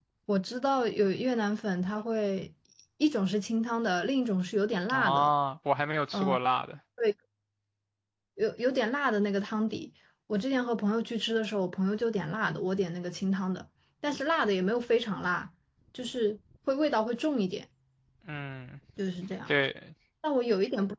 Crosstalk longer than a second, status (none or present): none